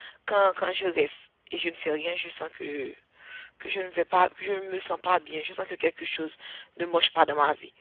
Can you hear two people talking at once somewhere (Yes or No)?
No